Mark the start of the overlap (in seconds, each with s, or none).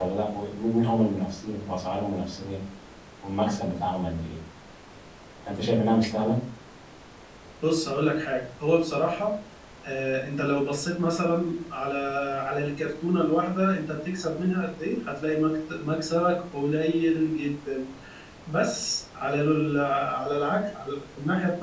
none